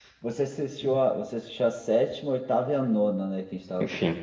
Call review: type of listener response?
taking over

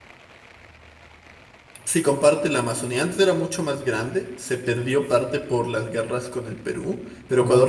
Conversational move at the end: listening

